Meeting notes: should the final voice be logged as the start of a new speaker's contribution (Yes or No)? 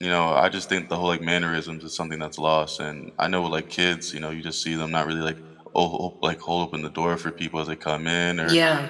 No